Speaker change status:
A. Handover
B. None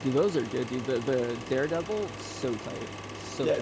A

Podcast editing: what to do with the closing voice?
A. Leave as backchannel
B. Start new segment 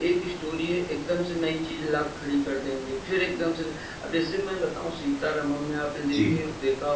A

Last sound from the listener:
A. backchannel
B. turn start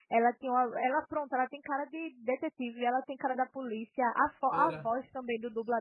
A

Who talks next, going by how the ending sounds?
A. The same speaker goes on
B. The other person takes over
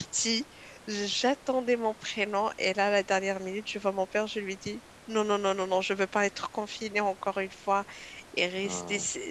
A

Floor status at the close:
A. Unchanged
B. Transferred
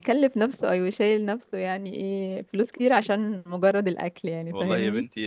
B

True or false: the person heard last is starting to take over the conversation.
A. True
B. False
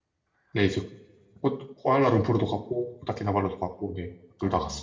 A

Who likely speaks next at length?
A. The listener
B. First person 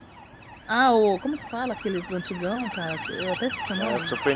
A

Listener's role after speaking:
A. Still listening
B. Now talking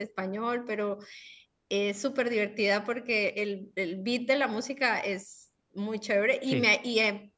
A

